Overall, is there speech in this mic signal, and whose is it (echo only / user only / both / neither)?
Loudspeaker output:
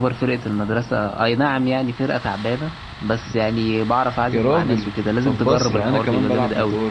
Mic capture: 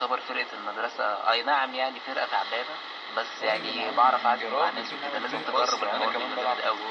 both